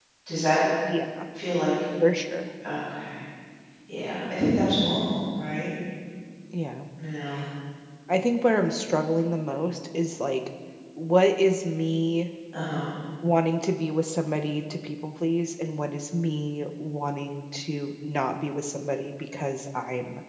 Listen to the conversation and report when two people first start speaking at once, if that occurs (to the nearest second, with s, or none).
none